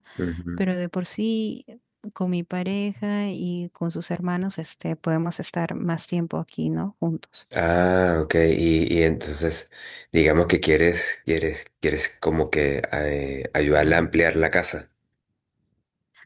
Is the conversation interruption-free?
Yes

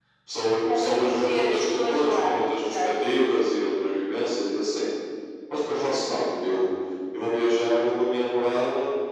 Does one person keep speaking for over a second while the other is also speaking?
Yes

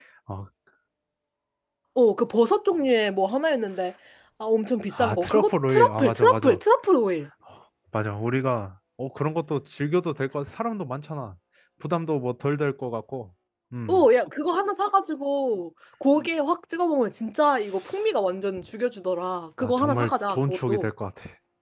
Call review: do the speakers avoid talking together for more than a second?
No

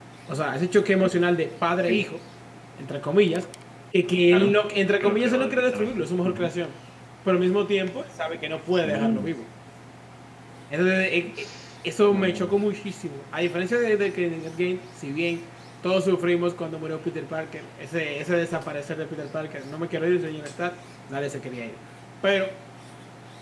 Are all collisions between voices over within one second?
No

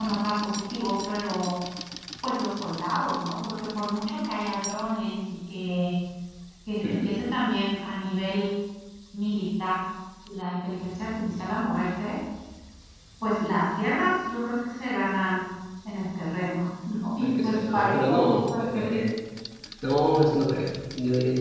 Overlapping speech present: Yes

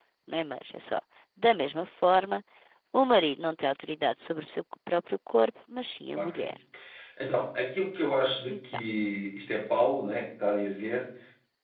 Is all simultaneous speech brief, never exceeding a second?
Yes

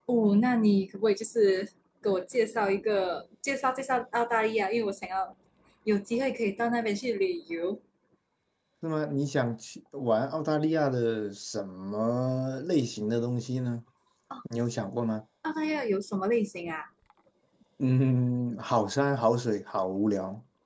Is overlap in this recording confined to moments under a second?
Yes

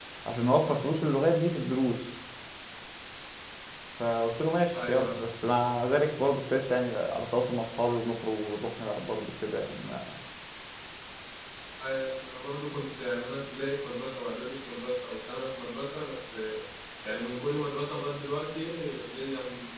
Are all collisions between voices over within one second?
Yes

